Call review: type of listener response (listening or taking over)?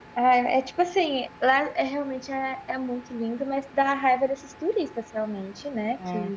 listening